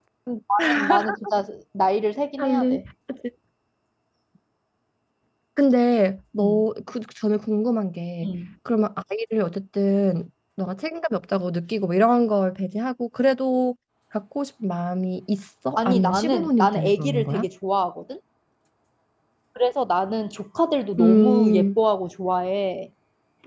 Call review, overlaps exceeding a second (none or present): present